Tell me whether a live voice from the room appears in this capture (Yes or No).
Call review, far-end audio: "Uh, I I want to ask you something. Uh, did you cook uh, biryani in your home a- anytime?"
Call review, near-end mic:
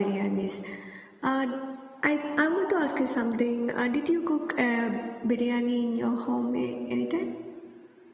No